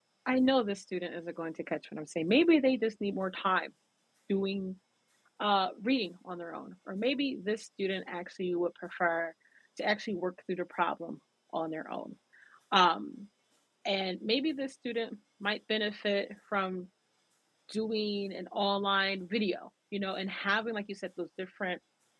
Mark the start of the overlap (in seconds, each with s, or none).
none